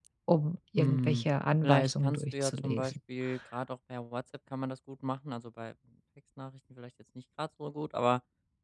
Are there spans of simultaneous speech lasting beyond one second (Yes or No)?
Yes